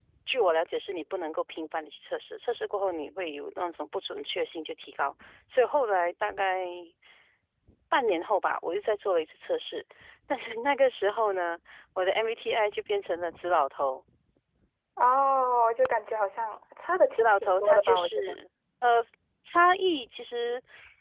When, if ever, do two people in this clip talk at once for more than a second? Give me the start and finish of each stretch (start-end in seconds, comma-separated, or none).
17.1-18.4